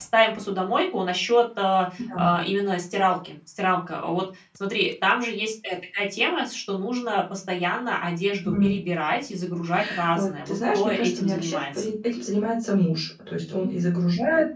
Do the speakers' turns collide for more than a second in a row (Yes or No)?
Yes